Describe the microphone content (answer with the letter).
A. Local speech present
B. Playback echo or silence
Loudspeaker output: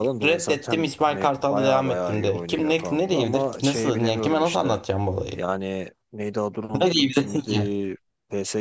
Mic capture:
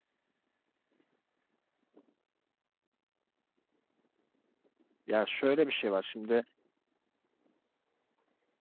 A